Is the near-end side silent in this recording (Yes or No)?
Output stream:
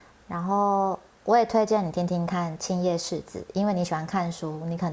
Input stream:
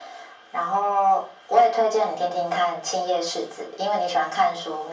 Yes